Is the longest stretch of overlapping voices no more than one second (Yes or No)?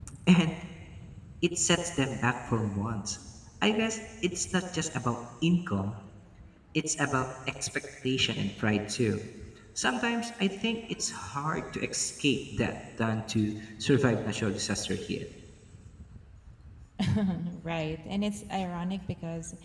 Yes